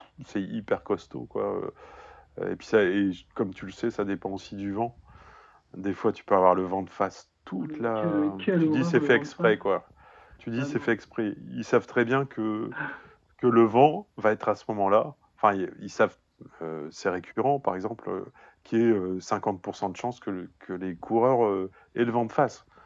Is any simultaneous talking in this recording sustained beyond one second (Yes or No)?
Yes